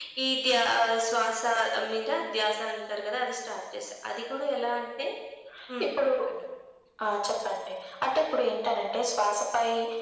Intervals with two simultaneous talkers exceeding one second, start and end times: none

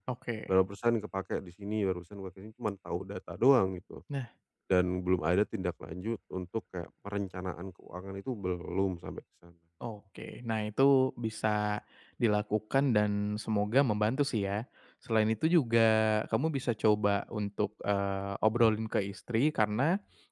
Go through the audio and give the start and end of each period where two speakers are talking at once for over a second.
none

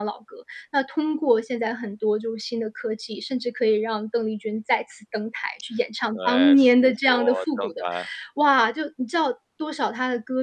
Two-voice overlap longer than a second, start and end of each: 6.1-7.8

